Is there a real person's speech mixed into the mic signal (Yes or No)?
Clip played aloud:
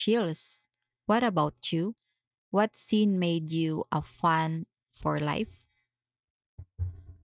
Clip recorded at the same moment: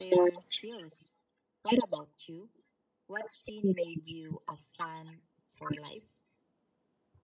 No